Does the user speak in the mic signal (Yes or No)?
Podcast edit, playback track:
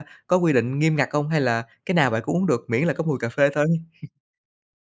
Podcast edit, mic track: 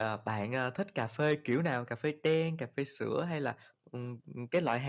Yes